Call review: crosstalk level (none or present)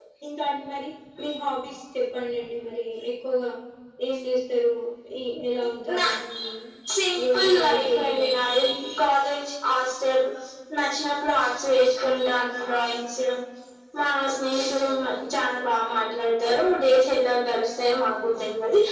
present